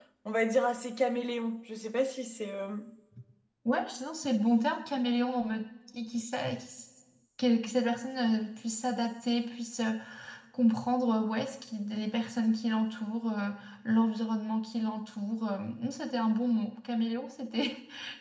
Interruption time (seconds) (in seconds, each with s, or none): none